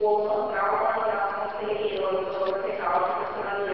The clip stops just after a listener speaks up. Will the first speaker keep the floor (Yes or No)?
Yes